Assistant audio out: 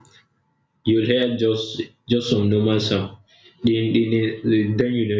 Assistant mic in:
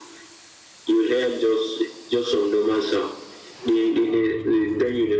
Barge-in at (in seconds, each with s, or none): none